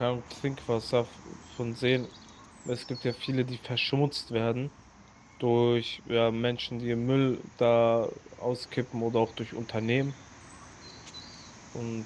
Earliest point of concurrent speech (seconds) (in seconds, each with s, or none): none